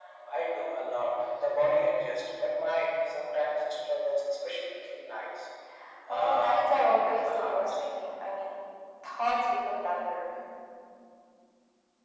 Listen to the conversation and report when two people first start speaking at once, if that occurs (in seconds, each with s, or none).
6.1 s